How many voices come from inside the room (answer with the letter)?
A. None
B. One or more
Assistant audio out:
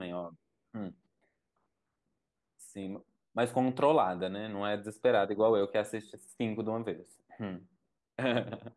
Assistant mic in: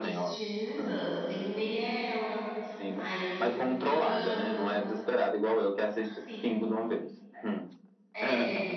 B